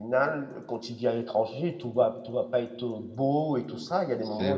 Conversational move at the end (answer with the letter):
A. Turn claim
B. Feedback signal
B